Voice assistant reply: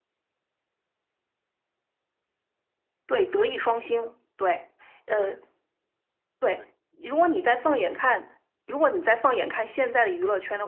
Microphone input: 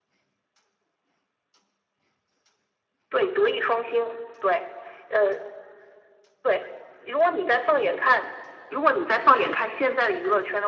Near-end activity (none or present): none